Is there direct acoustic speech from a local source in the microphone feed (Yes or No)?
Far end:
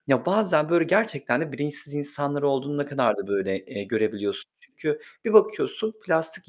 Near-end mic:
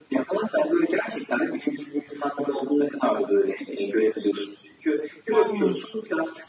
Yes